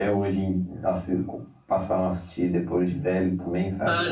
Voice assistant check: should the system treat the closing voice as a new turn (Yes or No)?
Yes